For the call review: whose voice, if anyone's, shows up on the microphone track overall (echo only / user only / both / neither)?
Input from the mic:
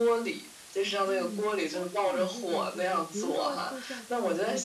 both